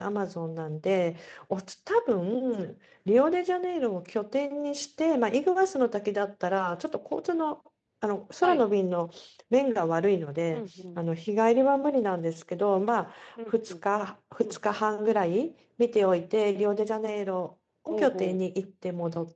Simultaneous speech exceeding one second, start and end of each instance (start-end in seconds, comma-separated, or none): none